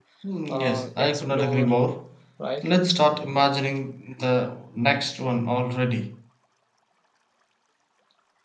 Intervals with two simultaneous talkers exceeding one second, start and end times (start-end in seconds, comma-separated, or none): 0.5-1.7